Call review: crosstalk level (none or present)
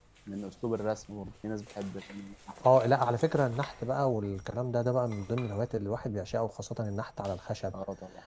none